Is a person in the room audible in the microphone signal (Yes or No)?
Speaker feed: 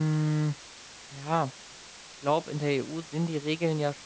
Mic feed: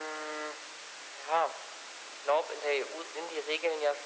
No